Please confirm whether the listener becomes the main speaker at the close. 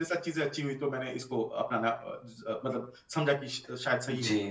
Yes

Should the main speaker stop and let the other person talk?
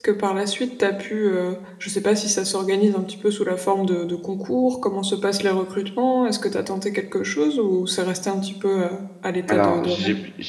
Yes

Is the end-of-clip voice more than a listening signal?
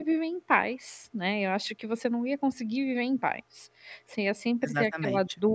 No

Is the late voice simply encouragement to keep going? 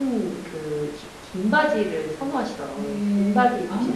No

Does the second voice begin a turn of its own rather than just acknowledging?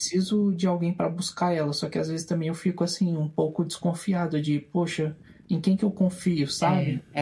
Yes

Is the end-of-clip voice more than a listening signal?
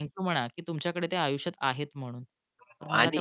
Yes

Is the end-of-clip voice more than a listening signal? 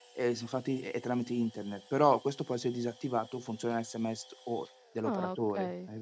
Yes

